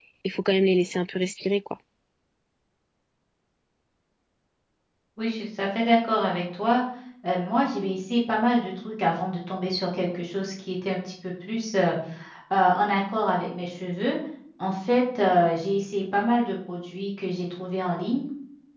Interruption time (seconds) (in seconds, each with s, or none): none